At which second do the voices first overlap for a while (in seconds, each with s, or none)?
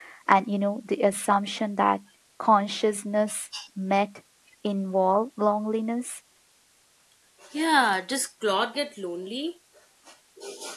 none